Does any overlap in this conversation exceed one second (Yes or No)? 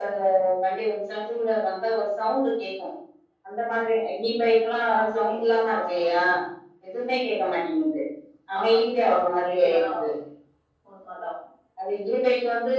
Yes